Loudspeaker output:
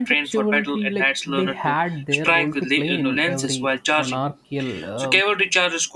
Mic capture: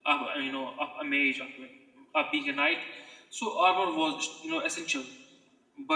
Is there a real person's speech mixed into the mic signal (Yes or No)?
Yes